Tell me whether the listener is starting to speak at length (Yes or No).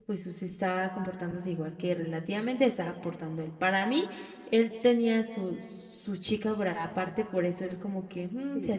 Yes